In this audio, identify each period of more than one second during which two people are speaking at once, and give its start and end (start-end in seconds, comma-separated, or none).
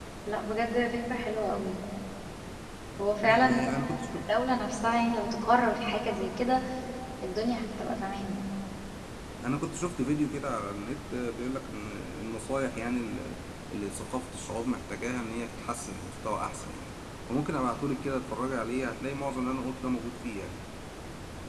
none